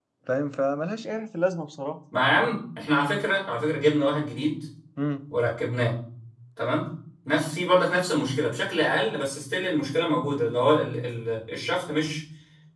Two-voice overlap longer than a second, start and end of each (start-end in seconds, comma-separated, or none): none